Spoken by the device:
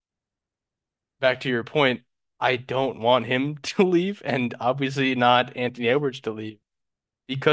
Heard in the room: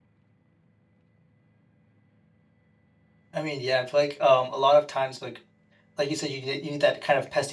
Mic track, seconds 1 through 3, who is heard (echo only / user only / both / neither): neither